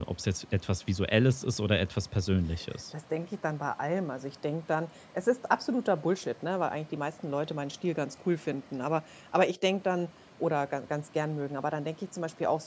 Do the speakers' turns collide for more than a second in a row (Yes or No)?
No